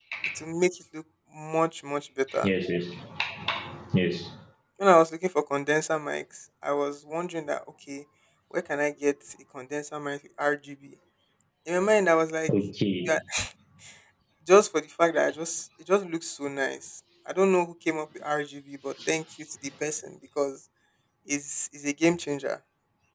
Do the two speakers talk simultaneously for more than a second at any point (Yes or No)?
No